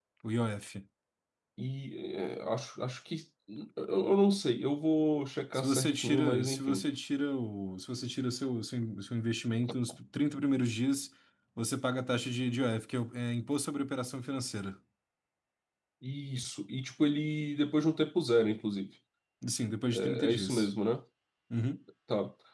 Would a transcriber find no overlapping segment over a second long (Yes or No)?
No